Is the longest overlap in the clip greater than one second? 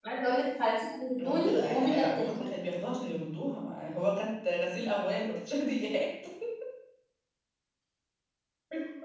Yes, from 1.2 s

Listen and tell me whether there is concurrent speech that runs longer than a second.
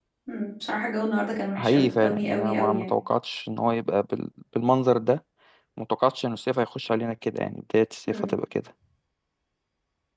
Yes, from 1.6 s

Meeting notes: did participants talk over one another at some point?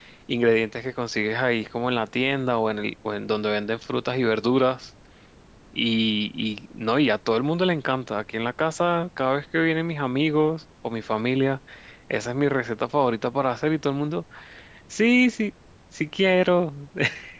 No

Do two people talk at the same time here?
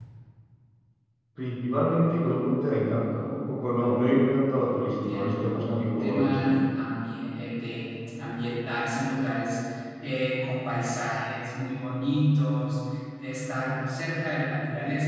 Yes, from 4.9 s

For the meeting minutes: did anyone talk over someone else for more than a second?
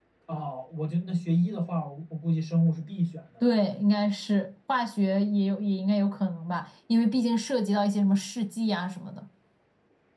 No

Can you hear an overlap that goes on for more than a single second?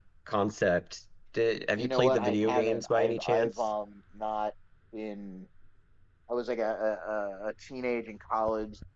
Yes, from 1.8 s

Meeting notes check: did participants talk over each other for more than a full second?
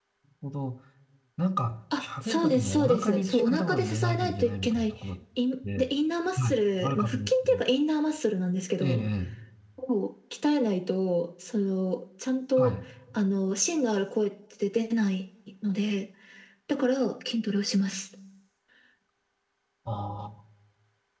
Yes, from 2.0 s

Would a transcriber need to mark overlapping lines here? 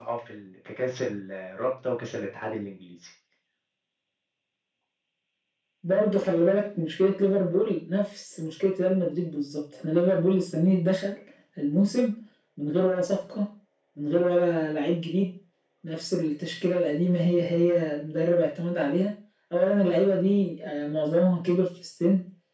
No

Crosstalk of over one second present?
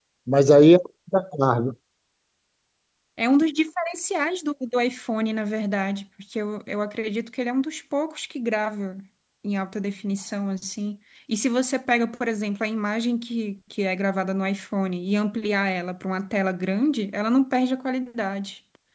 No

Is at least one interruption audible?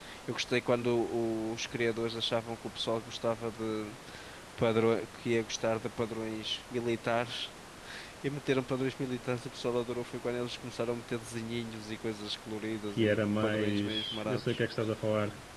Yes, from 13.0 s

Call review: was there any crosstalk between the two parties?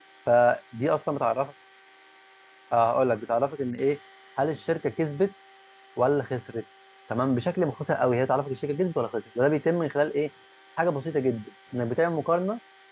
No

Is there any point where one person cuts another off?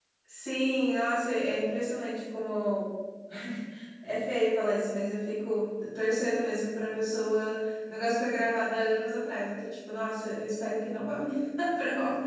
No

